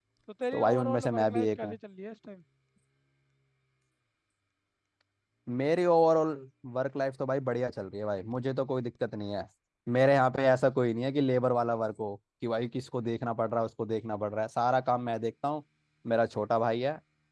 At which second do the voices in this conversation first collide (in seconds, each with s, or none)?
0.5 s